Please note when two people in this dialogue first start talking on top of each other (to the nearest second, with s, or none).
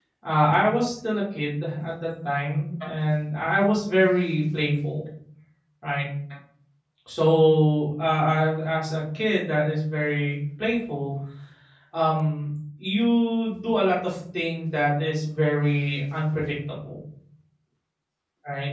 none